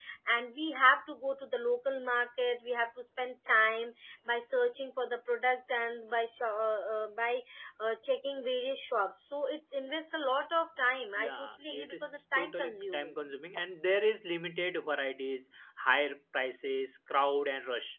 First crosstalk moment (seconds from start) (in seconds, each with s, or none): 11.2 s